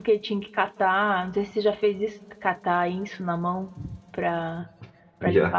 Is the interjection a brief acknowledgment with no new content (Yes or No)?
Yes